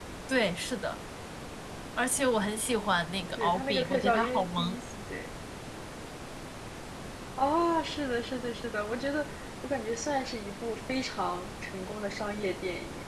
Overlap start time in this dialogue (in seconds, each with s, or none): 3.4 s